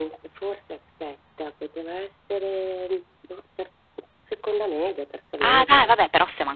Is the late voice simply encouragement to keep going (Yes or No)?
No